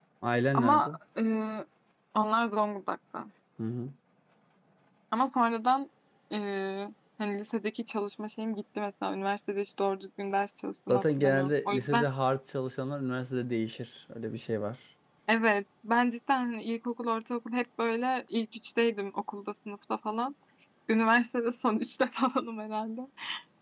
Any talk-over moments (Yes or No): Yes